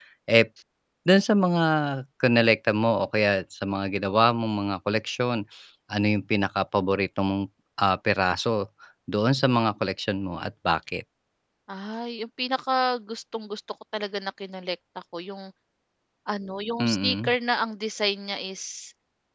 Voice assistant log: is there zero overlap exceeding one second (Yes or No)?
Yes